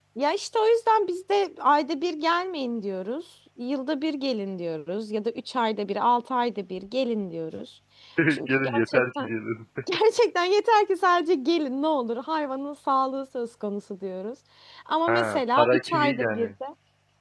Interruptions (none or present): present